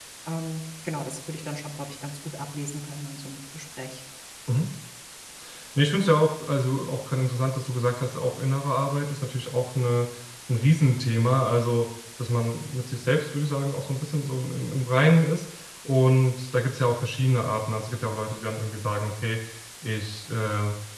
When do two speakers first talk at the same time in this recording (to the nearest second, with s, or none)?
none